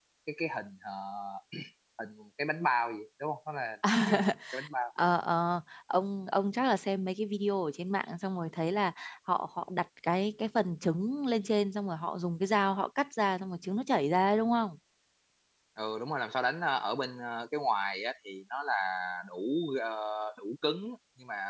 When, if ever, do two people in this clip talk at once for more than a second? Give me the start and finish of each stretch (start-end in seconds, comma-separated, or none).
none